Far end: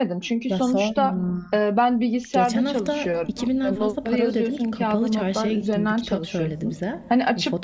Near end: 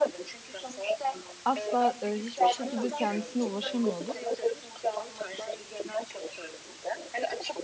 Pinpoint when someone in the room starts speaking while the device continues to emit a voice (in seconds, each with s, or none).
1.4 s